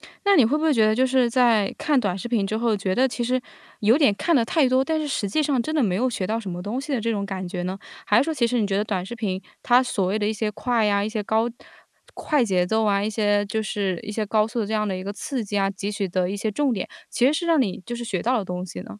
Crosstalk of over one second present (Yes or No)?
No